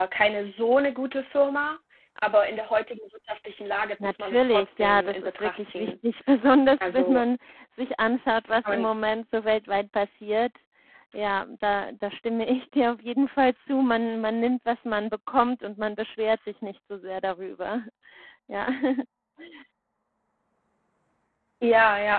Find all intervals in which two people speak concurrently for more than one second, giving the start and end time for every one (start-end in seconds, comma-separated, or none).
4.0-5.9